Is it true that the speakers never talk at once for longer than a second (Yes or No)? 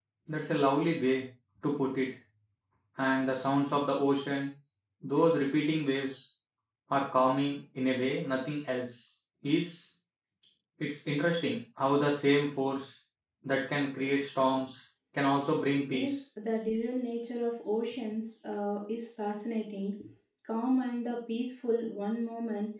Yes